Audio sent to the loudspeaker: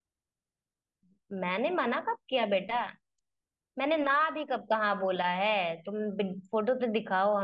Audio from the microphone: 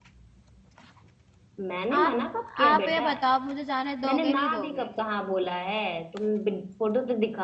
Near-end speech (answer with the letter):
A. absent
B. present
B